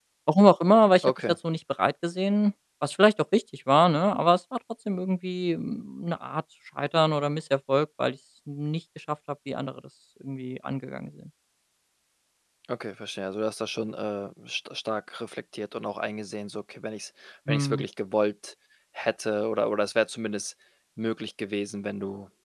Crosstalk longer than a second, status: none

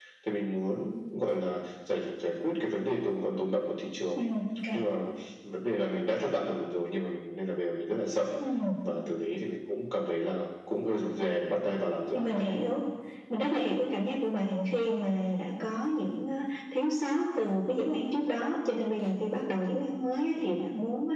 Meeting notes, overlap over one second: none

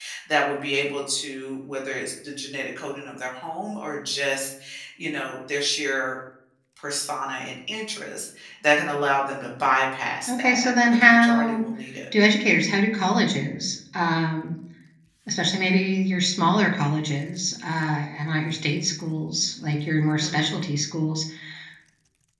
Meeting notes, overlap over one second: present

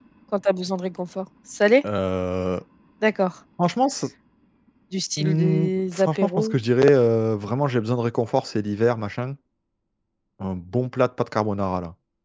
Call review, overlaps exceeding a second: present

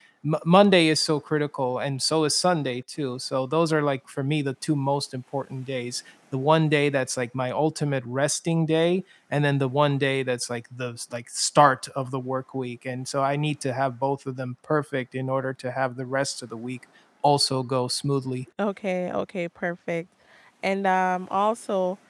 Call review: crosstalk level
none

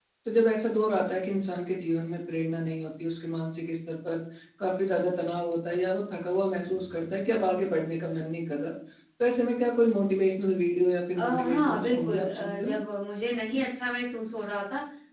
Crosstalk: present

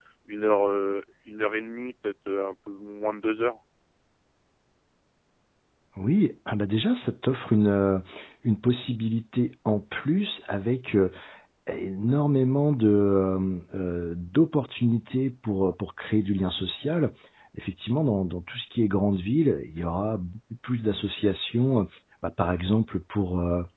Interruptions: none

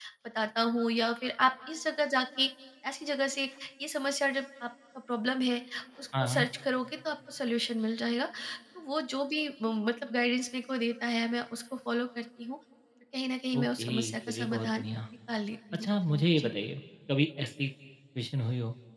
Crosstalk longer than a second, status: present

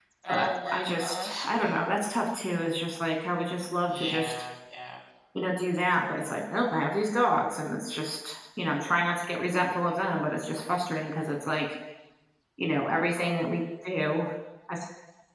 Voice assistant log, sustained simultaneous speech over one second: present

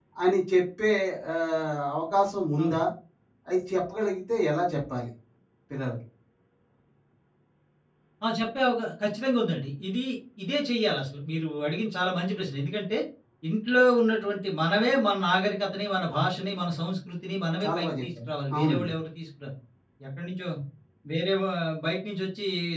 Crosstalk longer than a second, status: present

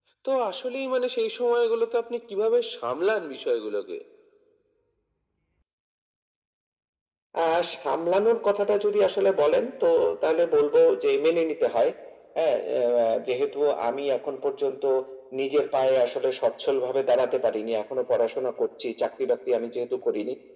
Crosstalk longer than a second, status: none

